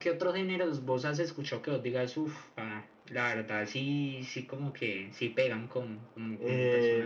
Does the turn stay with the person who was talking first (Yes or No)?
No